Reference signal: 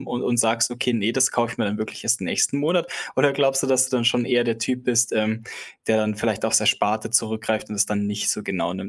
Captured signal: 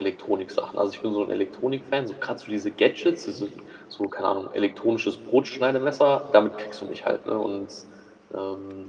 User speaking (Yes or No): Yes